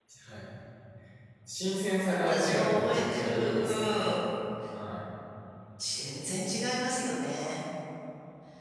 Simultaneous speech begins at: 2.3 s

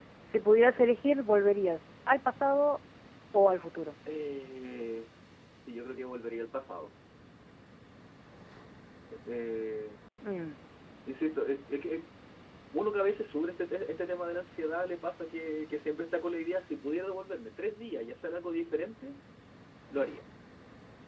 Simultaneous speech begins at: none

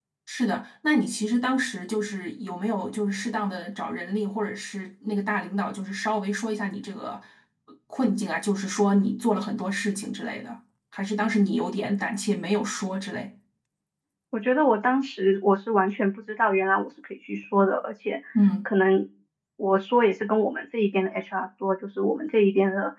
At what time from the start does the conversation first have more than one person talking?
none

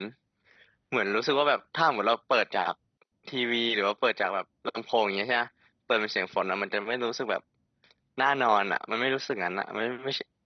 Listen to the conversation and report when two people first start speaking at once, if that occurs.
none

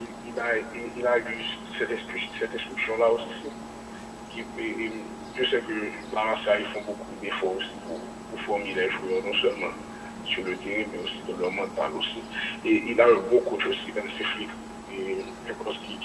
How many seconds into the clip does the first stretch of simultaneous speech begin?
none

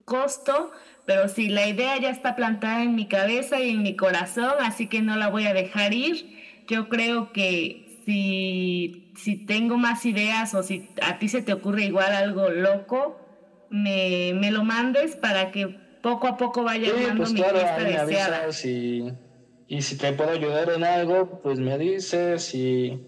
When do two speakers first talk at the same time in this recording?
16.9 s

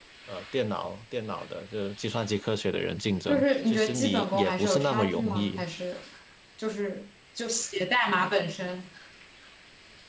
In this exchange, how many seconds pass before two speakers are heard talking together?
3.3 s

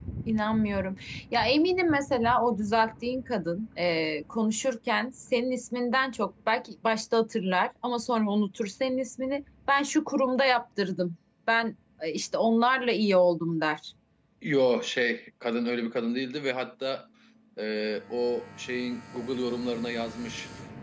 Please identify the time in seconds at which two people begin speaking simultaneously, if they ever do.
none

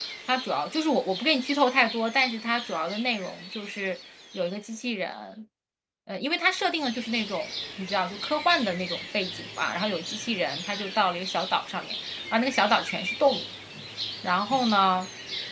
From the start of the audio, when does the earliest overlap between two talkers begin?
none

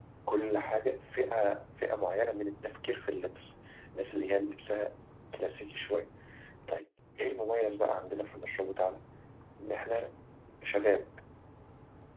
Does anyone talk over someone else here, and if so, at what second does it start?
none

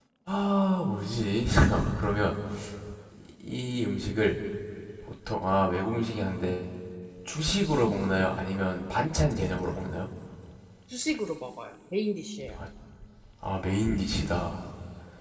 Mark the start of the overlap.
none

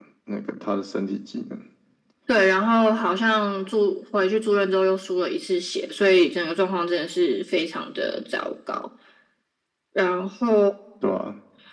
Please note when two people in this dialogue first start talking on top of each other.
none

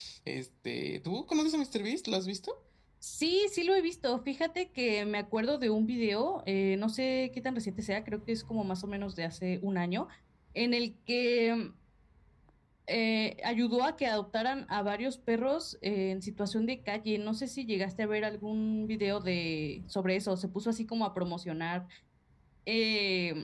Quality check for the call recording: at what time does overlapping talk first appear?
none

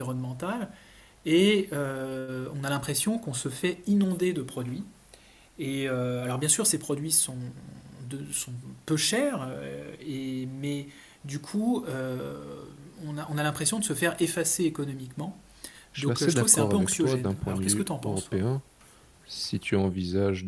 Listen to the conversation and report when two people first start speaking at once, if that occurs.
16.0 s

